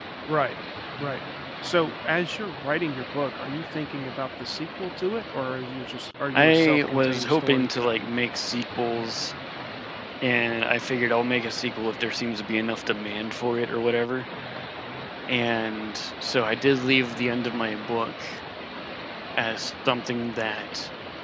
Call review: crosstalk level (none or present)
present